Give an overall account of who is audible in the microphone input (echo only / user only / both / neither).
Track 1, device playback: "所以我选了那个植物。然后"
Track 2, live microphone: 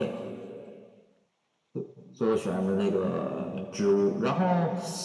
echo only